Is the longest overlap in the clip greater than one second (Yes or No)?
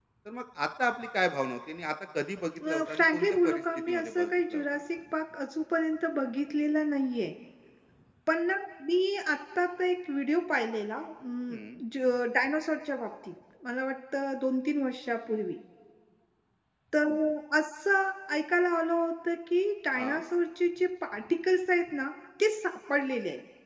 Yes